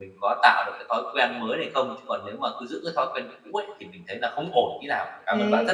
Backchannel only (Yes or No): No